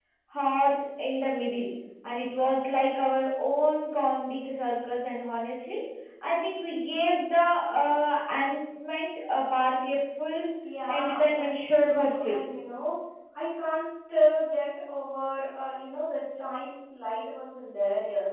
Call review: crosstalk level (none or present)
present